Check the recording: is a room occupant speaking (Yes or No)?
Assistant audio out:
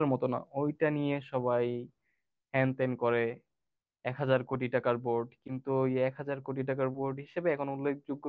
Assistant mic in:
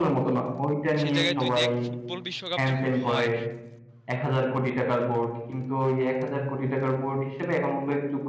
Yes